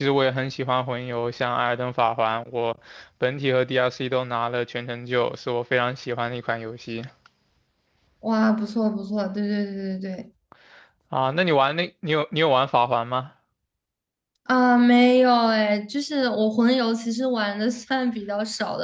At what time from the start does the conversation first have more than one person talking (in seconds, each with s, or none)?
none